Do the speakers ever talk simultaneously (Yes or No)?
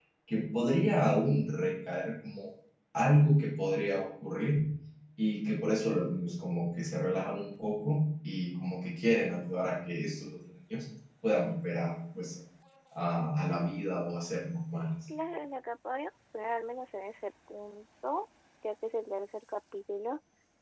No